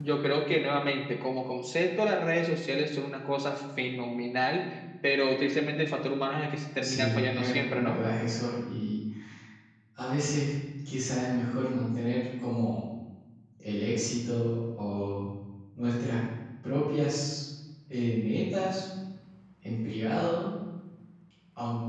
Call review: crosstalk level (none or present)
present